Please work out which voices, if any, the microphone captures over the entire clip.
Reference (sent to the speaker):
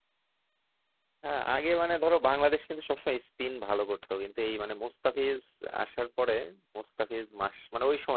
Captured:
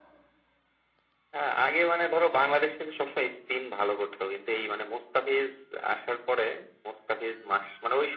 echo only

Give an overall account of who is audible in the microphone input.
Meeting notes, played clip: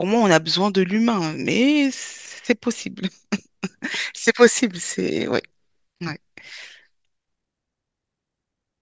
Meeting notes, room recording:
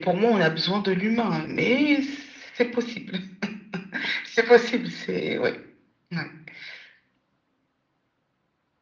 echo only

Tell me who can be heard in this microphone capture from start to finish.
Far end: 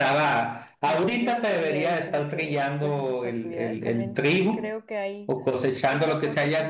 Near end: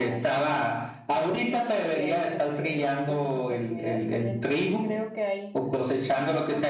echo only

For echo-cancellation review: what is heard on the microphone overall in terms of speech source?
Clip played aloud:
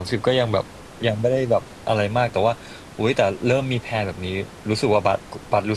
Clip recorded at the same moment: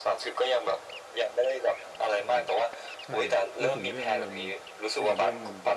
both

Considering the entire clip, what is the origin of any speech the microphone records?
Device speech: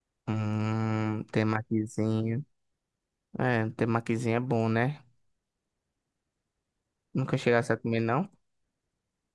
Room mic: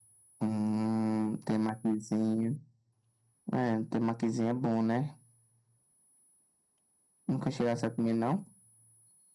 echo only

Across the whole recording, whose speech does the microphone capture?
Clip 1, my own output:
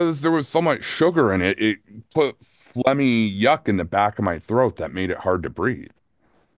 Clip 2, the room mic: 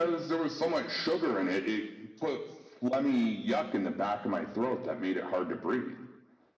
echo only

